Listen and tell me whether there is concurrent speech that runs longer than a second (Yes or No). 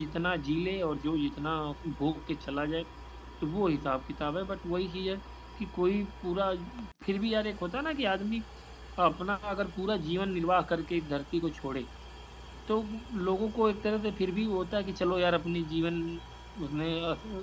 No